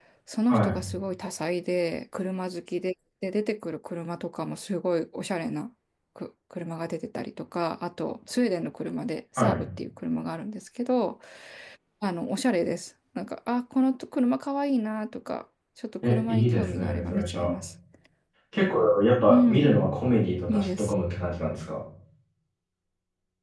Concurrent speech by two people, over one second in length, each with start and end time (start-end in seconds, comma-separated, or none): 16.0-17.5